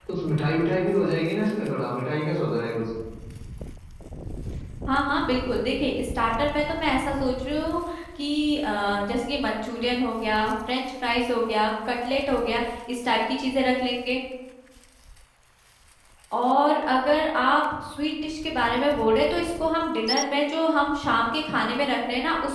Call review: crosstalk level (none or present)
none